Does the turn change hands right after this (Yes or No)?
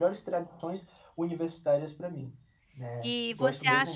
Yes